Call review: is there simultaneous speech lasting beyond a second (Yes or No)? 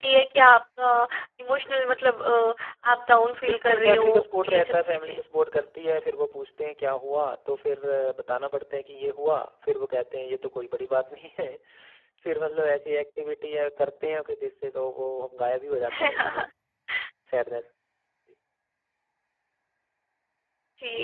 Yes